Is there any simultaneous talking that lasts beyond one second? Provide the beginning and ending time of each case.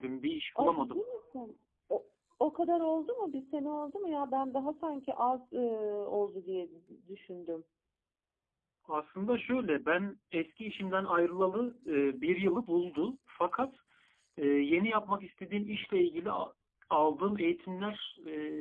none

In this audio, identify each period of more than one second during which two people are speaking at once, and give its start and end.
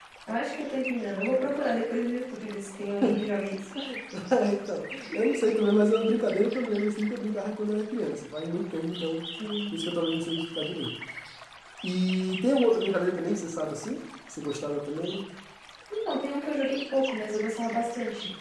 none

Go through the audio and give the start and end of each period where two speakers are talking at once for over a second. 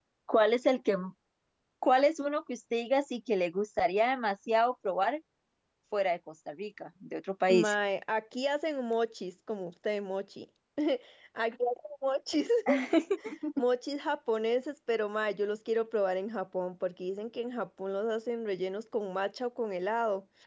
none

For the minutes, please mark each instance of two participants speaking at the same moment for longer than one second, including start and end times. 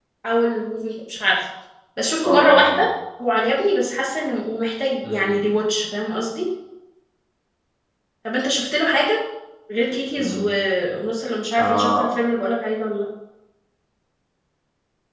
none

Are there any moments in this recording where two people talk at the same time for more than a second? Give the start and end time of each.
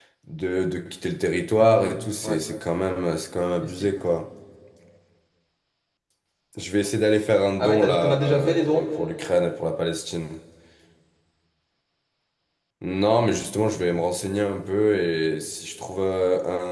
7.6-8.8

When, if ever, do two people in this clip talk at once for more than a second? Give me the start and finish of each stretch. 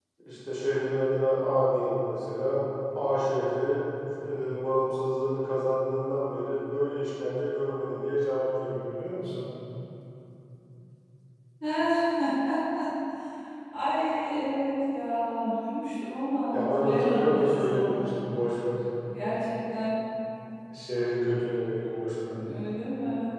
16.5-18.3

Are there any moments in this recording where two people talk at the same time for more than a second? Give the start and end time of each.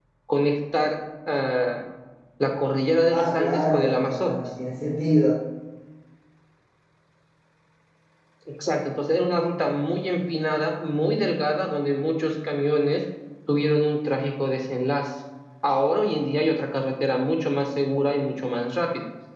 3.1-4.4

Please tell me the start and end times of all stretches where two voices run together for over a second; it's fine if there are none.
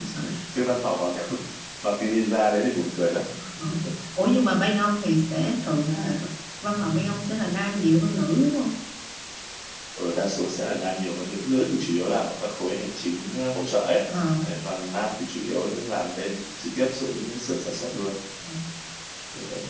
none

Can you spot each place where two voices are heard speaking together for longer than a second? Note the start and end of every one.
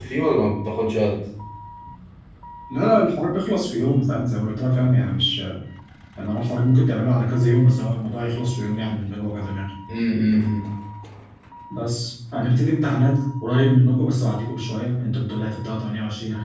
none

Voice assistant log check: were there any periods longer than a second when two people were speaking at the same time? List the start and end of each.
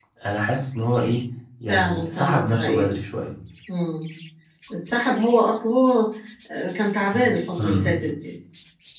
1.7-2.9

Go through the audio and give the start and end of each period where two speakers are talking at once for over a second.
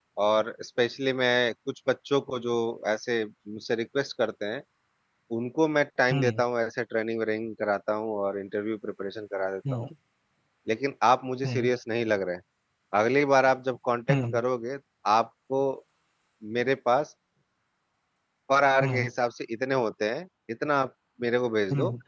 none

